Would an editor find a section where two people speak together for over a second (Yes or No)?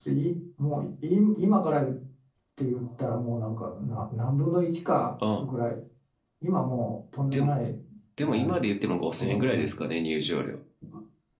Yes